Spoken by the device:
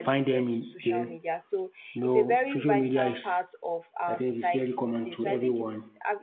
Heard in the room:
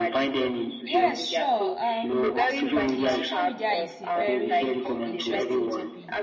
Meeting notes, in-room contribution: present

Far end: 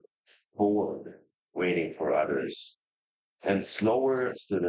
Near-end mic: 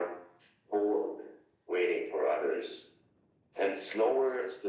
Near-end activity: none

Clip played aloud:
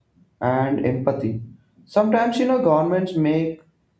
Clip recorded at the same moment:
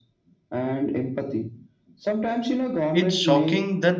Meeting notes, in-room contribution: present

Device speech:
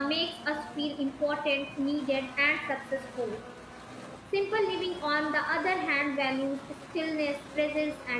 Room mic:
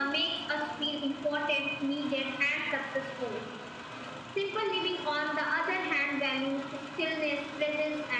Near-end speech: none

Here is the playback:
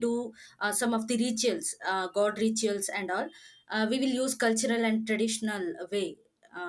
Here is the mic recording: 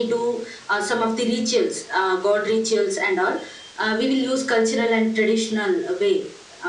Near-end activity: none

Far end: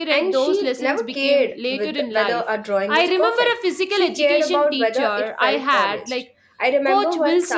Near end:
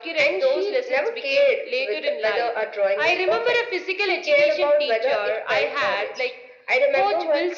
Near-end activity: none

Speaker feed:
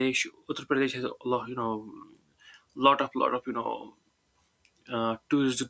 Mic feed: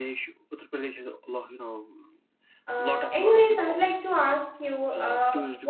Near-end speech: present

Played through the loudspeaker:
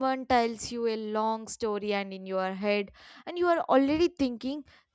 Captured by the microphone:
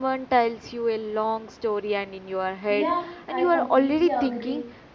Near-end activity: present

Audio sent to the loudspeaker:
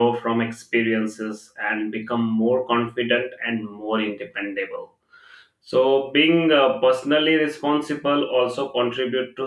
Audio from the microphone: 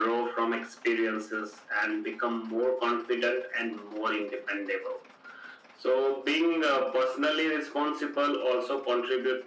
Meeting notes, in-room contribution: none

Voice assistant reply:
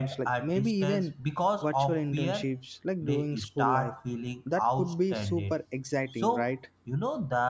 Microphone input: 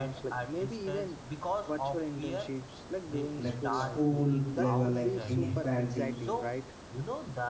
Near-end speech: present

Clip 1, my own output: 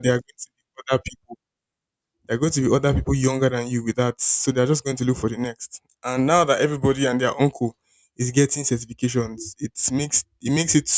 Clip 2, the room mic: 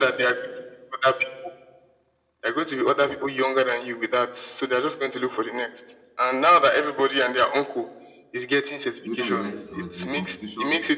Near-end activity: present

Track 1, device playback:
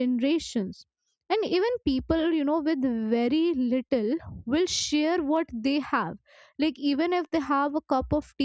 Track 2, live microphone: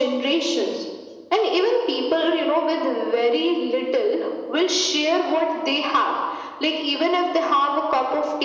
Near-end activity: none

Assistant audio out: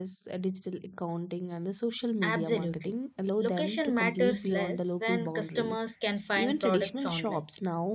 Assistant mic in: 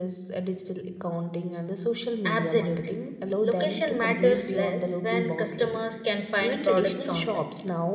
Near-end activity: none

